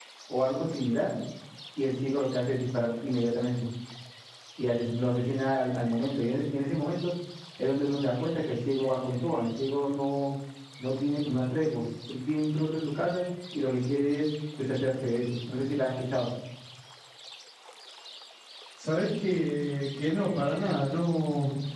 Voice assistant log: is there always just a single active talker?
Yes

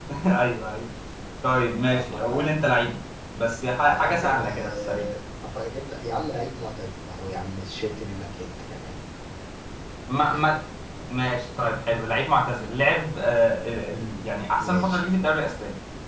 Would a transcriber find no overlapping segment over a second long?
No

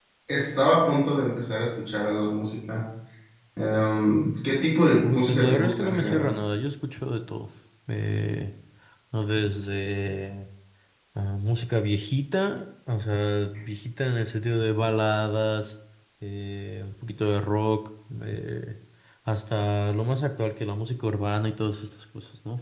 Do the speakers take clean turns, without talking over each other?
No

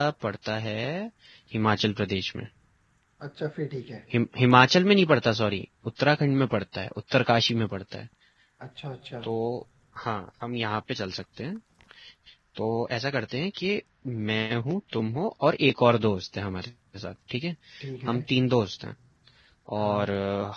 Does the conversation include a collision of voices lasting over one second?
No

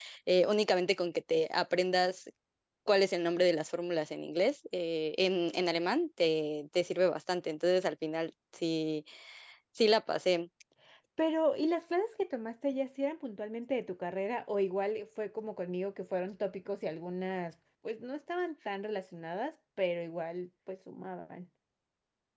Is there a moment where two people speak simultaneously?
No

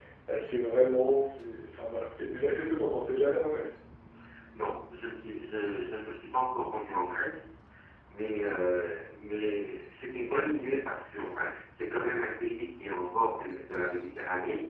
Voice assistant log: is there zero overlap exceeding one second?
Yes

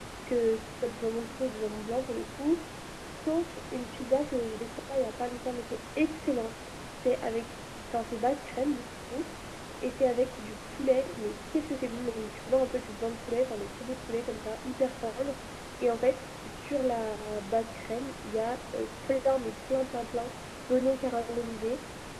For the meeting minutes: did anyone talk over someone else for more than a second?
No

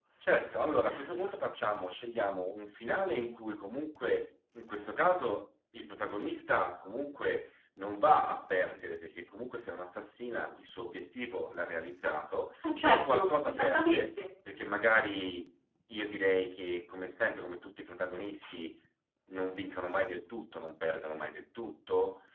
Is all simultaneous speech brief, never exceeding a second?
No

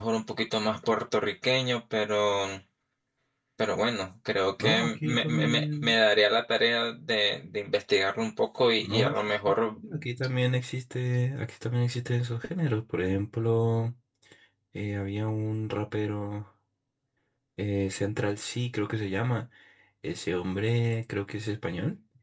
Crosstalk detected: Yes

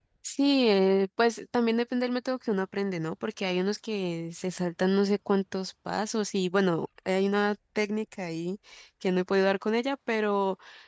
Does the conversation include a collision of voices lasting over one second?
No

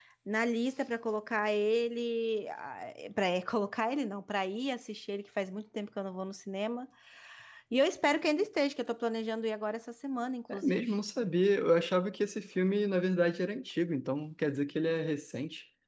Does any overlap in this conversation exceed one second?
No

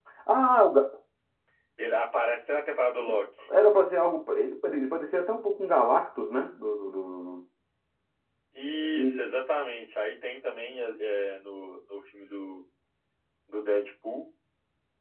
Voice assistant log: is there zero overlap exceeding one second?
Yes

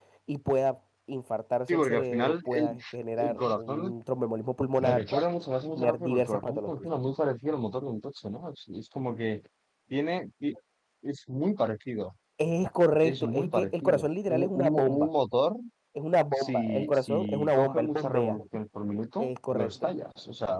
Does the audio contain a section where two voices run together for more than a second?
Yes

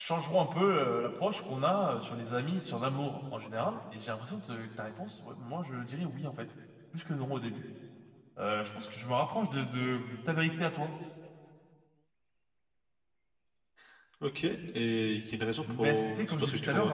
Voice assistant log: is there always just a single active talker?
No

